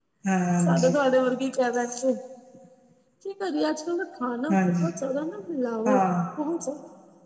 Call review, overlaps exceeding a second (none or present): none